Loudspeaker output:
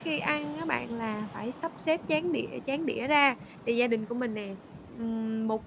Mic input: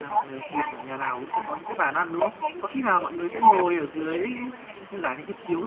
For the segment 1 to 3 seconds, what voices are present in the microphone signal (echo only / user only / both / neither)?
both